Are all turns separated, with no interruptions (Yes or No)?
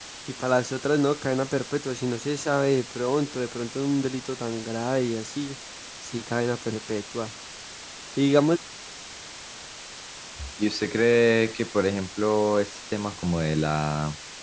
Yes